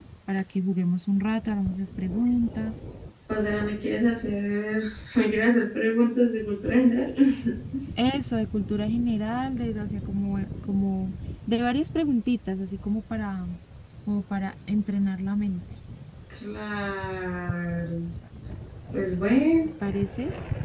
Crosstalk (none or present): none